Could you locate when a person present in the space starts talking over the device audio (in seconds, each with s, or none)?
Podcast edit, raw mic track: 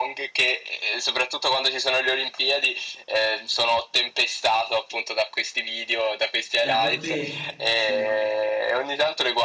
6.6 s